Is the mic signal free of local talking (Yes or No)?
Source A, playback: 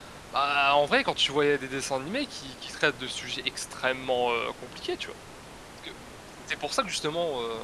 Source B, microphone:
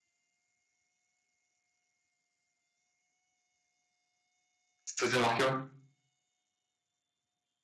No